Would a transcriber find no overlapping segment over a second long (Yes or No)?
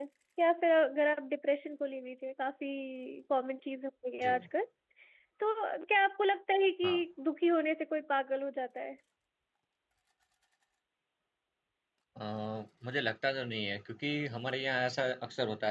Yes